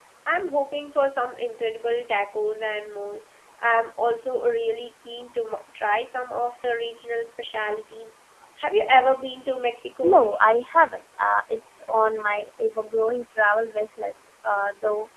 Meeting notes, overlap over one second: none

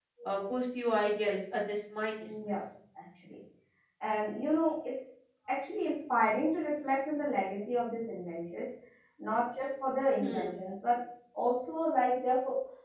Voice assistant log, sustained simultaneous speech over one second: none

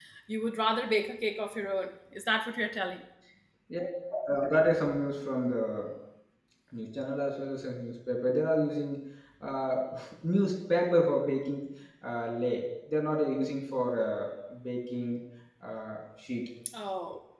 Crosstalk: none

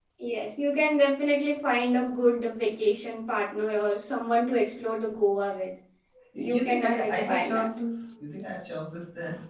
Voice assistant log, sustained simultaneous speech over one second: present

